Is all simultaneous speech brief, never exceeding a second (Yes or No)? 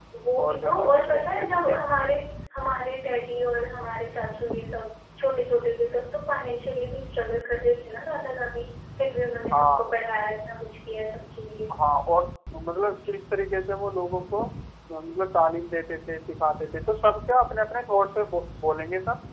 No